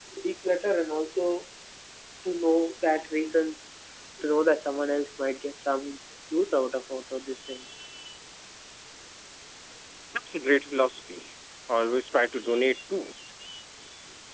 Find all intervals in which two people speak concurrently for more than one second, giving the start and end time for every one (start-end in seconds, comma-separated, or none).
none